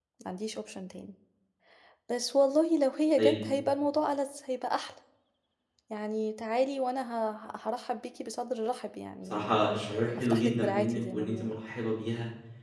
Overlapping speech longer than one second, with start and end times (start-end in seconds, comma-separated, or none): 10.2-11.5